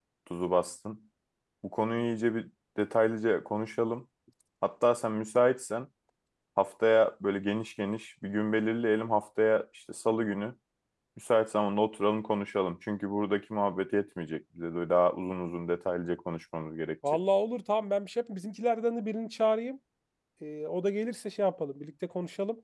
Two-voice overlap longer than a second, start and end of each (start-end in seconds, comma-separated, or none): none